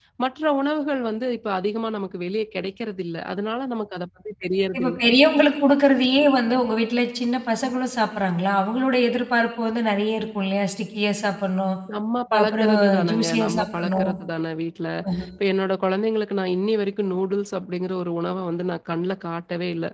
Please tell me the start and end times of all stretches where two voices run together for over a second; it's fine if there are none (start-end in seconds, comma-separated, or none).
12.4-14.1